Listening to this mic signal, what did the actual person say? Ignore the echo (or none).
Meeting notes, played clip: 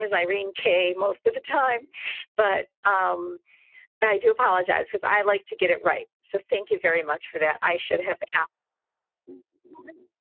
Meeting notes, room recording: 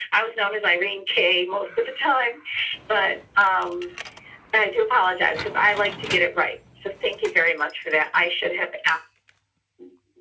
none